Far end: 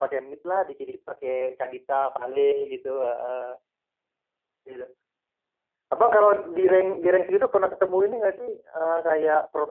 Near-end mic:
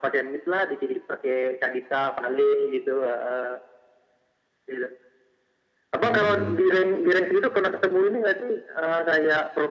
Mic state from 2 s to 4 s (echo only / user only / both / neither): echo only